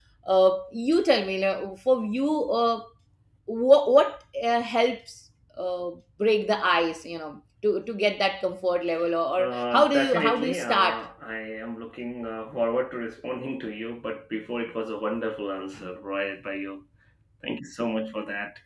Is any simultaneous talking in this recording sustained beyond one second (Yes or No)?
Yes